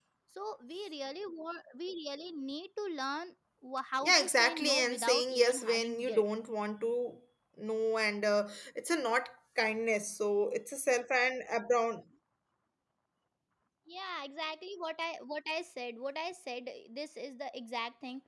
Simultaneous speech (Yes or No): Yes